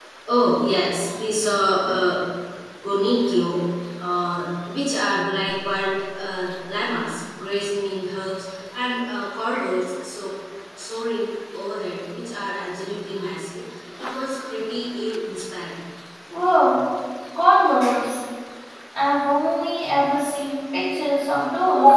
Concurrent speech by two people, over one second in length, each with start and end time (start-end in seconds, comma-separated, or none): none